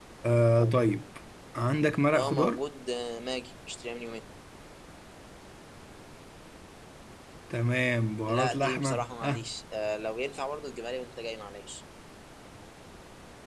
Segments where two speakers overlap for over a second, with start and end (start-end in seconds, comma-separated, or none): 8.3-9.5